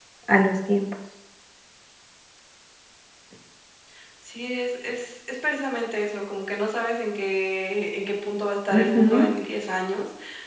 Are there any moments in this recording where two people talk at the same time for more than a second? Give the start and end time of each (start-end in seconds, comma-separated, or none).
none